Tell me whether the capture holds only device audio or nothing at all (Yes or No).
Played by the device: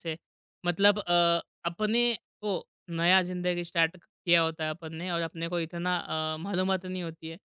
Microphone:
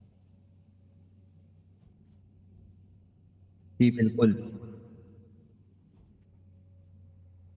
No